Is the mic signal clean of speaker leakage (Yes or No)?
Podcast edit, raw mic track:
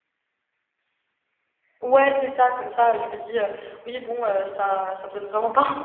Yes